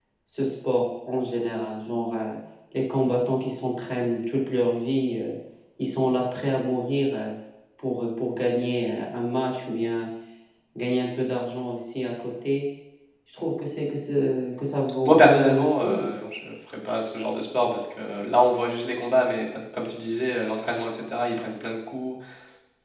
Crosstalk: present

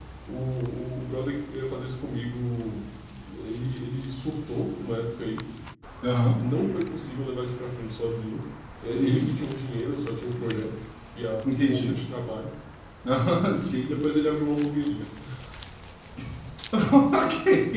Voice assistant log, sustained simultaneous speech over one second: none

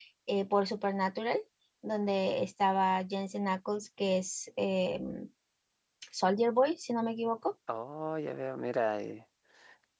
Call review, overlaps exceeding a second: none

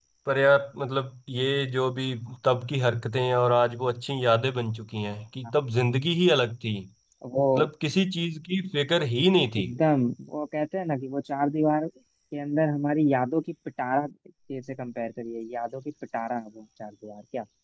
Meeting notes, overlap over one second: none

